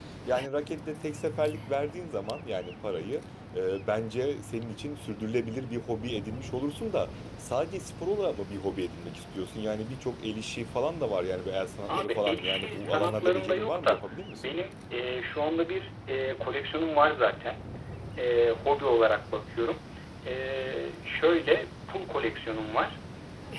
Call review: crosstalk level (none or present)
present